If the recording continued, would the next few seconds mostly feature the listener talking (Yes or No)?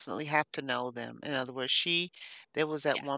No